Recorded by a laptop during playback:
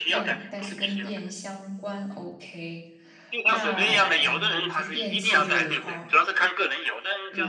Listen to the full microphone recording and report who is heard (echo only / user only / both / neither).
both